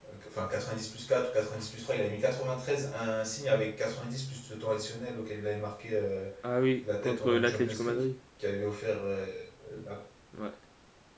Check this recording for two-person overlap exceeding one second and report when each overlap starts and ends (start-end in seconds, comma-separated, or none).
6.8-8.1